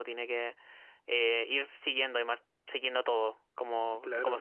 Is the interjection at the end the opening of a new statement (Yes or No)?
Yes